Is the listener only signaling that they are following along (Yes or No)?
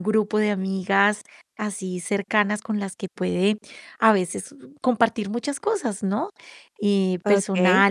Yes